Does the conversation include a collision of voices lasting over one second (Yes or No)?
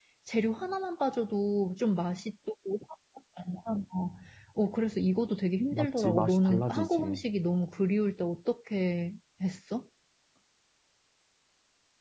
Yes